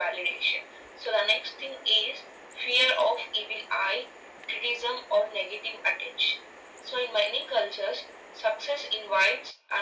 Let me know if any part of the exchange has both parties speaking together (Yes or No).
No